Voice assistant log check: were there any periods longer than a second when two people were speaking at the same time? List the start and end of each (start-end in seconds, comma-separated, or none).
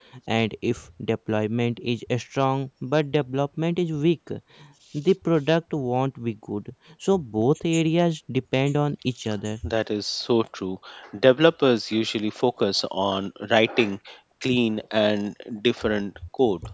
none